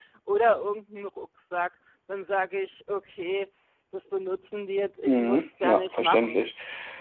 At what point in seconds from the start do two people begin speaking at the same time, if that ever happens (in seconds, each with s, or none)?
5.0 s